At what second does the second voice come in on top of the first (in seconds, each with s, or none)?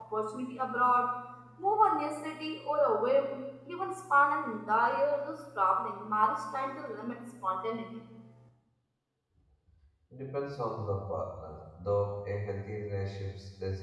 none